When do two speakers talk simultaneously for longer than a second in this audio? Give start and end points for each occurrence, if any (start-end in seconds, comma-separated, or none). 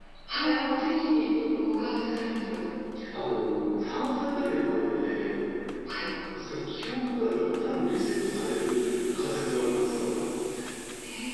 none